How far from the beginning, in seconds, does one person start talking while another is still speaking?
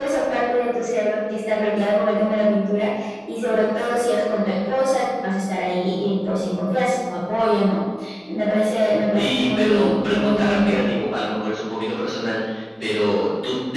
9.1 s

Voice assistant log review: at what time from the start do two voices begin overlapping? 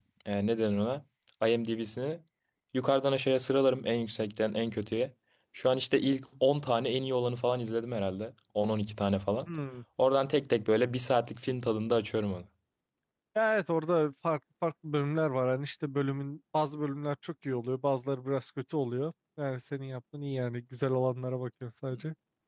none

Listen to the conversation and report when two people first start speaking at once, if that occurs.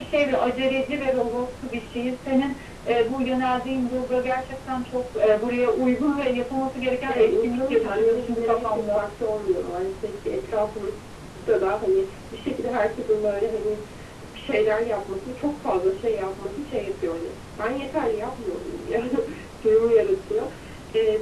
7.1 s

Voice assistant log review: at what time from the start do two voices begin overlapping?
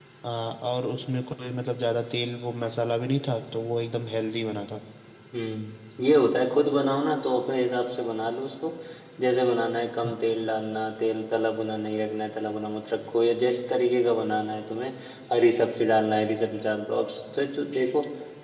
none

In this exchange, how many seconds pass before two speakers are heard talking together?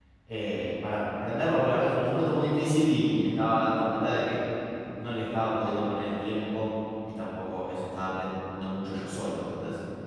none

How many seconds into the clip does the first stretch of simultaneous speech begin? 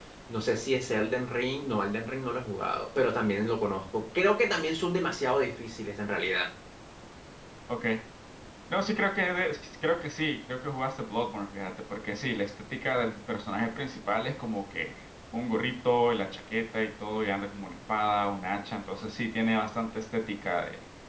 none

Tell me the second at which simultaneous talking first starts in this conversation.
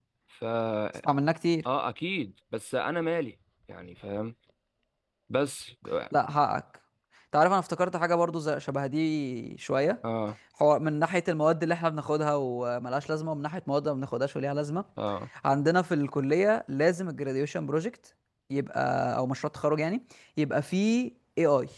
none

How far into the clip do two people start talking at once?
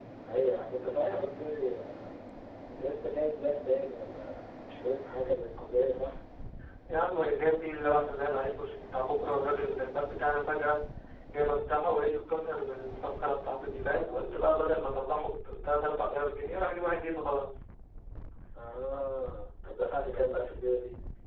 none

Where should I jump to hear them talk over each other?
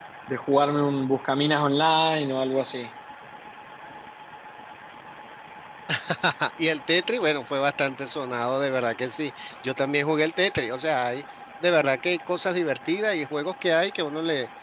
none

